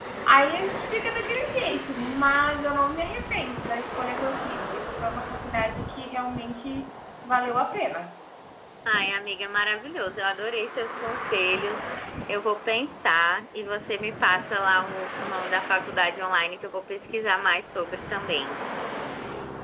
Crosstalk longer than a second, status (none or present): none